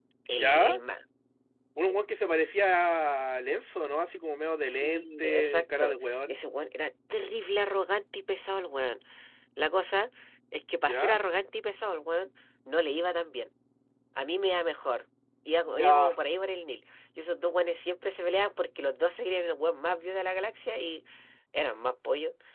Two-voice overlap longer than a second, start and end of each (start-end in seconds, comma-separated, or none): 4.6-6.4